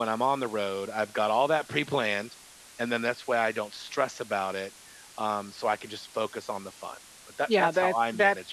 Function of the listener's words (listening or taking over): taking over